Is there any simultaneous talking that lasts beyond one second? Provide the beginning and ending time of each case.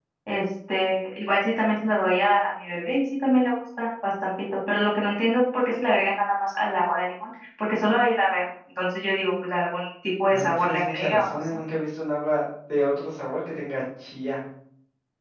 10.3-11.6

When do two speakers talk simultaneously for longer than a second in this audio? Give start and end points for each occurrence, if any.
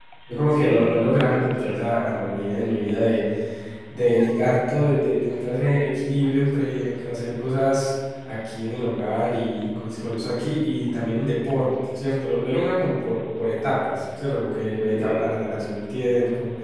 0.5-1.7

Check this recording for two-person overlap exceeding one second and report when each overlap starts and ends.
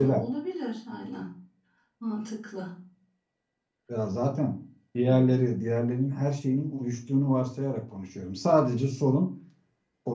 none

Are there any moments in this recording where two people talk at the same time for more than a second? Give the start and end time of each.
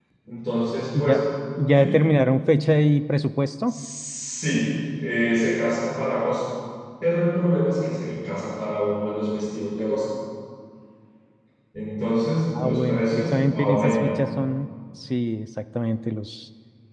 12.6-14.1

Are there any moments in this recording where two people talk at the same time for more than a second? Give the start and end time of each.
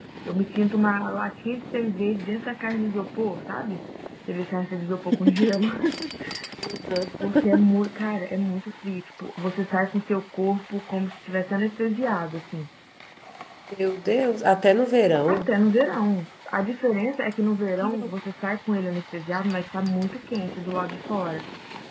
none

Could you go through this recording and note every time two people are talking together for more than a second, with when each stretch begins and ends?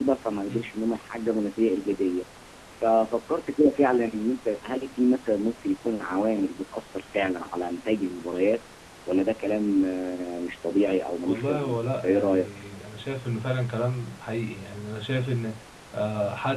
11.3-12.5

